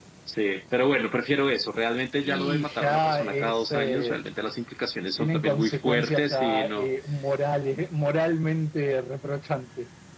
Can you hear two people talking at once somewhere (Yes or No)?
Yes